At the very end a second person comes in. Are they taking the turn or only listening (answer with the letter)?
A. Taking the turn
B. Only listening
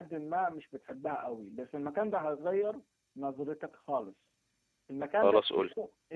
B